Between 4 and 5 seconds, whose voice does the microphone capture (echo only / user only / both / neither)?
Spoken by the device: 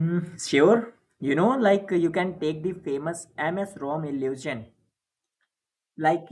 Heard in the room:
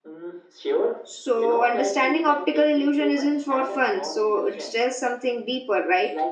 both